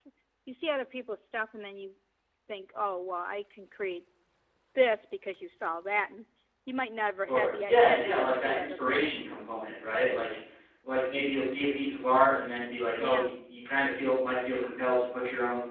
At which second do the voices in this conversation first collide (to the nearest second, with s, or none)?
7 s